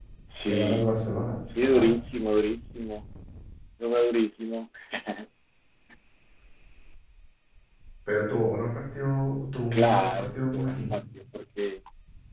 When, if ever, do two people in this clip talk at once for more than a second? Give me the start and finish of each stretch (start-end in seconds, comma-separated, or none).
9.7-10.9